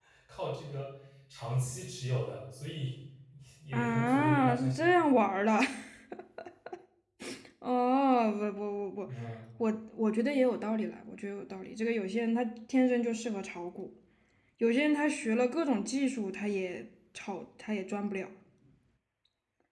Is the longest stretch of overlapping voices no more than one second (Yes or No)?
No